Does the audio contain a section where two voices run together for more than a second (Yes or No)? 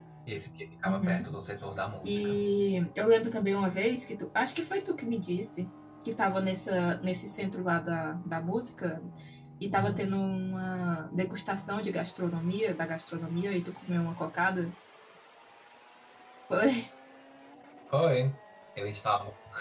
No